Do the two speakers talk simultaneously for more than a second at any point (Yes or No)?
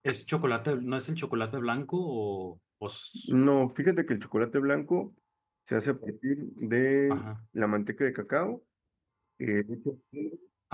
No